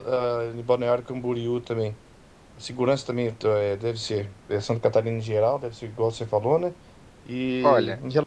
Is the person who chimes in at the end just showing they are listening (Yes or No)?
Yes